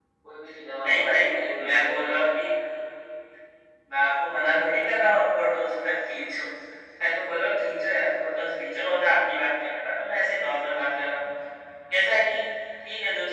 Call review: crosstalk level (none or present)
present